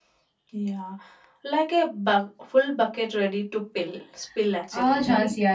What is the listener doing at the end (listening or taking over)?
taking over